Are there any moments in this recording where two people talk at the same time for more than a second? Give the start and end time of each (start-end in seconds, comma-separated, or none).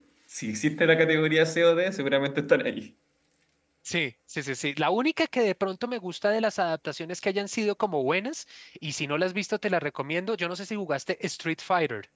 none